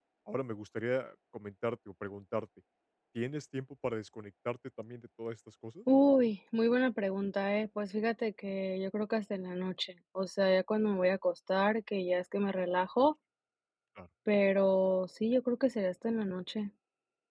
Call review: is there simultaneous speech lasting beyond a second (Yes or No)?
No